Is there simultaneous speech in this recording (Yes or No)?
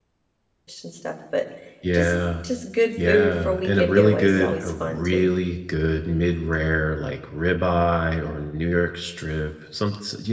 Yes